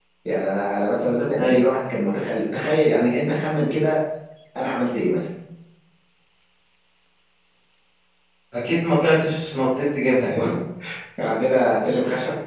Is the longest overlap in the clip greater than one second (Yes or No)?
No